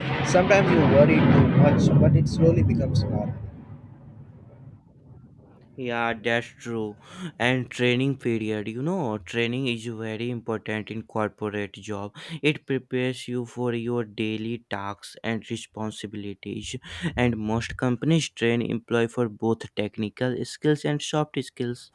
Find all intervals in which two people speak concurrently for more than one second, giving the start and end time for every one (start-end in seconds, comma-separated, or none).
none